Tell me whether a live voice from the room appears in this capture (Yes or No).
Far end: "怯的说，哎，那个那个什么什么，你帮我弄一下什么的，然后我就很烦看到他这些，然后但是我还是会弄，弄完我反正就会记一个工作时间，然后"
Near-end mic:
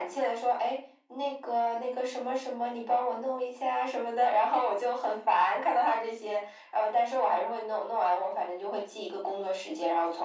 No